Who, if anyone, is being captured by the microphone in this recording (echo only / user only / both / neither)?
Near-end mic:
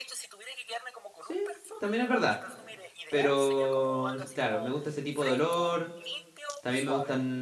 both